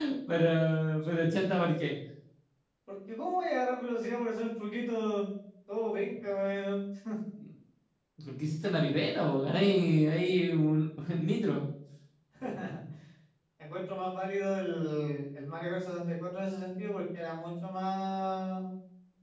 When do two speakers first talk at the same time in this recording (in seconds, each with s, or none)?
none